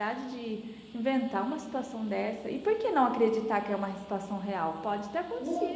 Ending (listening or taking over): taking over